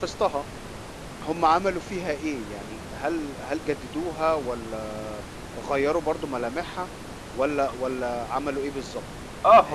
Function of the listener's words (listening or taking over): taking over